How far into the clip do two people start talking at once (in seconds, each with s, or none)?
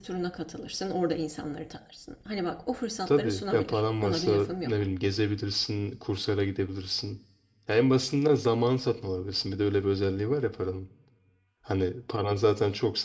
3.1 s